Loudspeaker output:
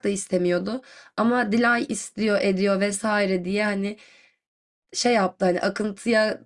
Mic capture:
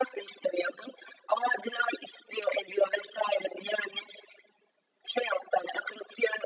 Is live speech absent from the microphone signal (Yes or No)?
Yes